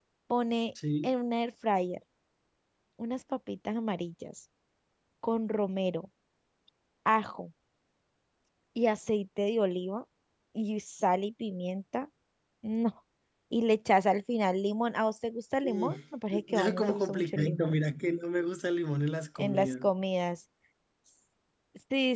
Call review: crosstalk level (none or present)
present